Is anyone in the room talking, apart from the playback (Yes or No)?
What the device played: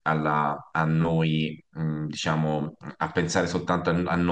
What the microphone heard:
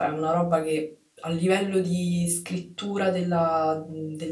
Yes